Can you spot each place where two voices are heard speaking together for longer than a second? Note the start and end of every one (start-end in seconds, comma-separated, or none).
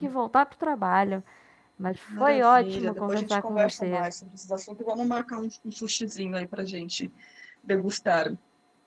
2.2-4.1